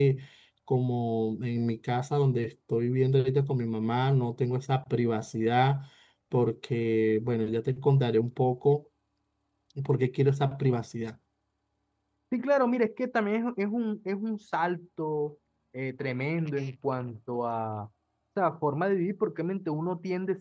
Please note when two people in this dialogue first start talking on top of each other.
none

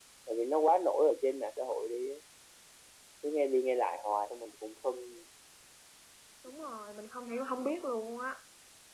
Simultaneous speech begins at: none

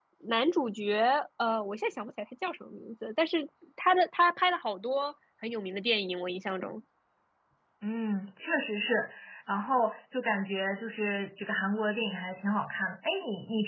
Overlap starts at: none

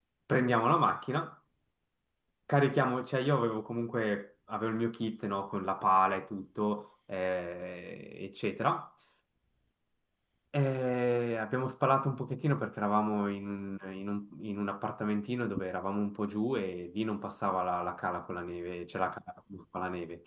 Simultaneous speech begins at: none

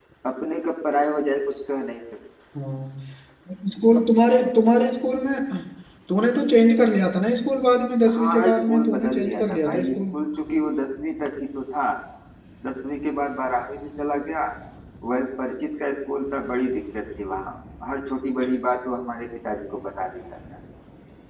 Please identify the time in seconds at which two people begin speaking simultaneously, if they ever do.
8.1 s

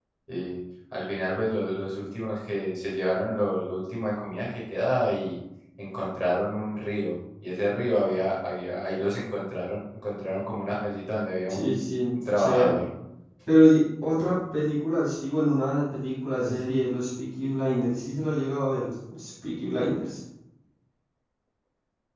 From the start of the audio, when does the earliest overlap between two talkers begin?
11.5 s

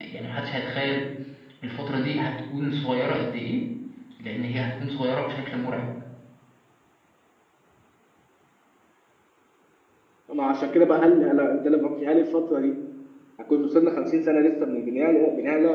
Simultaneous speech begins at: none

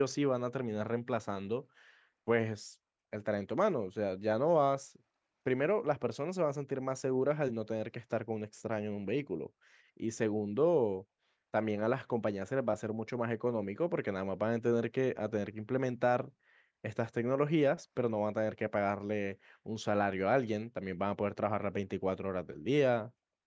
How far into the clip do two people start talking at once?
none

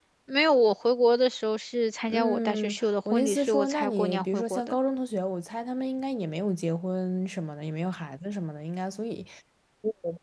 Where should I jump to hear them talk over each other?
2.1 s

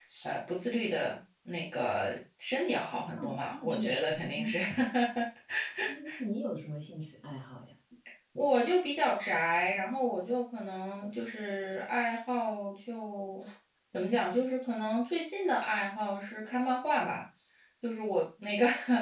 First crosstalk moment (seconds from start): 3.2 s

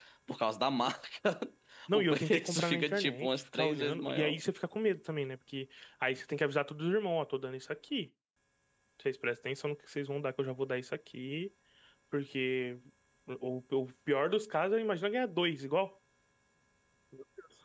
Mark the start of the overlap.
1.9 s

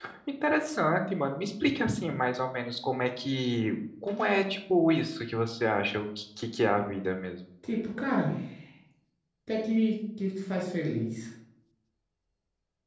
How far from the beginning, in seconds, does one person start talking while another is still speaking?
none

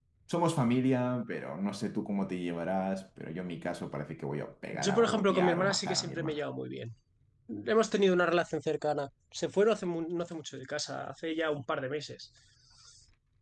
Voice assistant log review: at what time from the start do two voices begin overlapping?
4.7 s

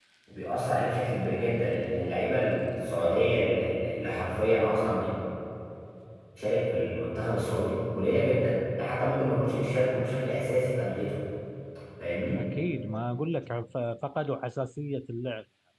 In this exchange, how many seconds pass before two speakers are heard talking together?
none

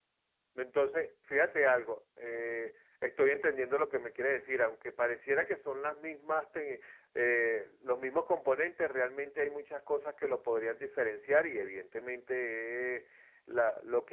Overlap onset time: none

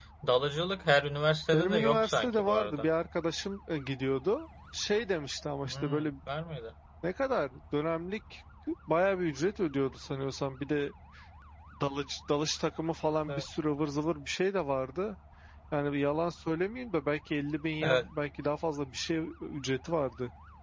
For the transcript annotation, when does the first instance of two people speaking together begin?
1.5 s

